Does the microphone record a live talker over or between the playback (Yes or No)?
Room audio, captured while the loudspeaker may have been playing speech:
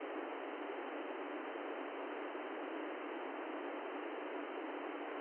No